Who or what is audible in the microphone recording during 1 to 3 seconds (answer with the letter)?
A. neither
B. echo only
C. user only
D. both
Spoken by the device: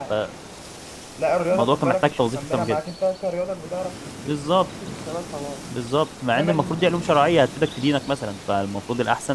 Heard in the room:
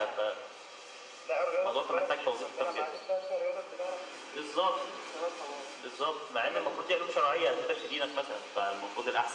B